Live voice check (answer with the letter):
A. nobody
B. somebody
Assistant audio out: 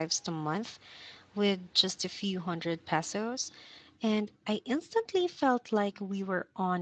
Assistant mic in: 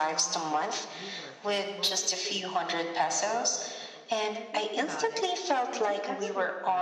B